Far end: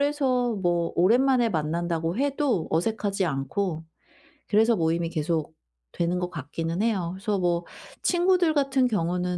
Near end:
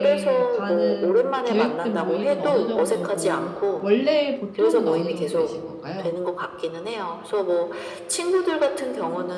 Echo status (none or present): present